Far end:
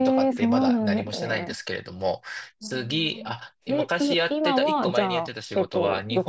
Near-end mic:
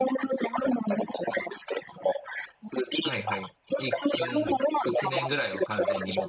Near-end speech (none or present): present